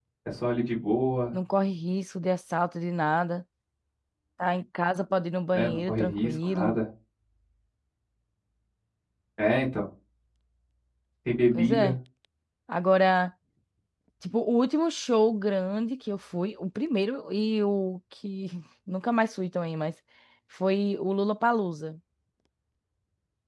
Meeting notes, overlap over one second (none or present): present